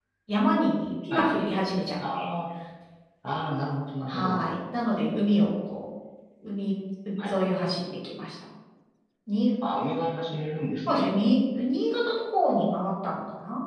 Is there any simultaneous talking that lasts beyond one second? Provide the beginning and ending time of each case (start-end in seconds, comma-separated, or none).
none